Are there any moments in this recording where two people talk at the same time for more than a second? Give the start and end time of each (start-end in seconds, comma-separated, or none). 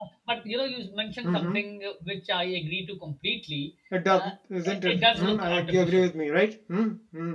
4.7-6.1